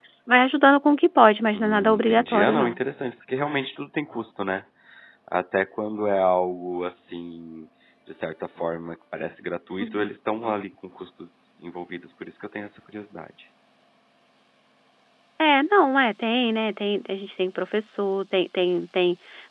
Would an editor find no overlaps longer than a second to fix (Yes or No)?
No